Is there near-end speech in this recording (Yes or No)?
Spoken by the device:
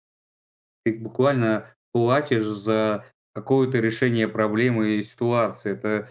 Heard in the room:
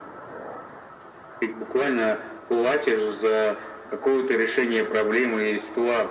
No